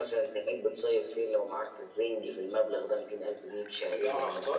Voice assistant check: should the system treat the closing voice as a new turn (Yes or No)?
Yes